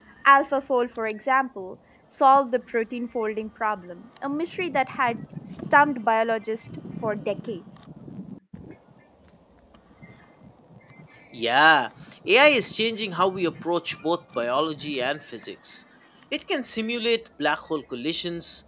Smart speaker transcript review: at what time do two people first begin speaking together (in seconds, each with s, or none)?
none